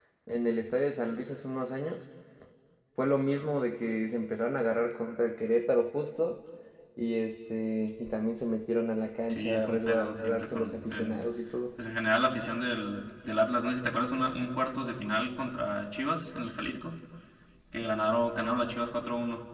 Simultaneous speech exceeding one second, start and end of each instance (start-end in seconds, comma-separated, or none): 9.3-11.2